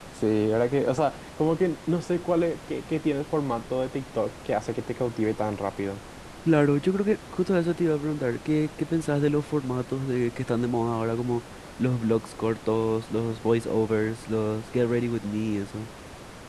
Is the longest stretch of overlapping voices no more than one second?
Yes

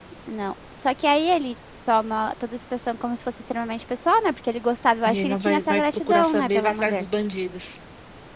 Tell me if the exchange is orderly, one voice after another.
No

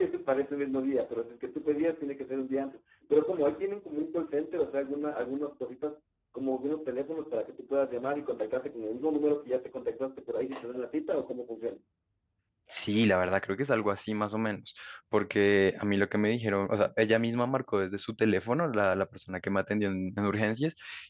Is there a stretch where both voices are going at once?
No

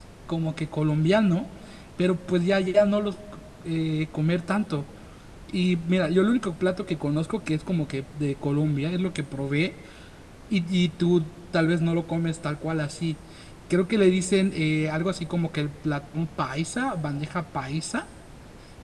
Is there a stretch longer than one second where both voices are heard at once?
No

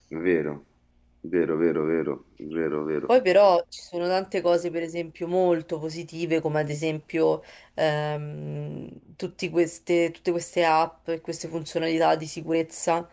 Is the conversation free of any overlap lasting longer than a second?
Yes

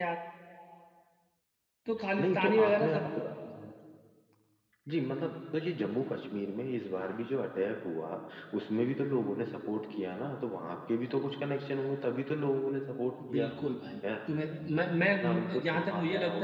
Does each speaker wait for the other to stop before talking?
No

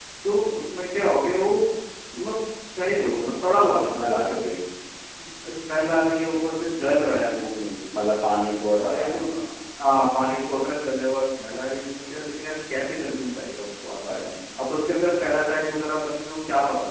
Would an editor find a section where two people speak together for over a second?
No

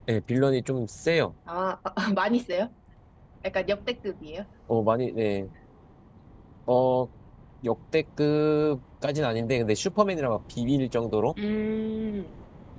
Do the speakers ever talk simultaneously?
No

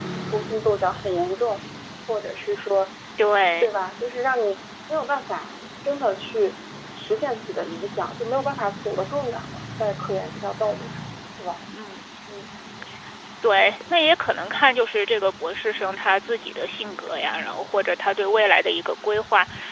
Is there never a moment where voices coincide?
Yes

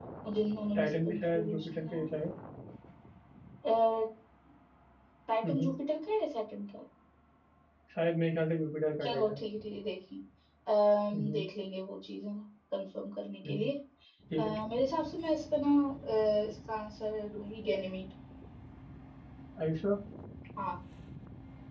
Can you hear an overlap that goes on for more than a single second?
Yes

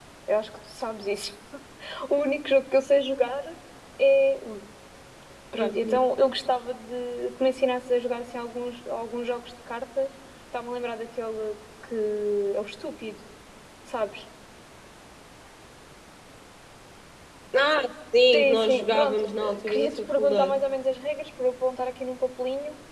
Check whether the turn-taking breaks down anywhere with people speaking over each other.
Yes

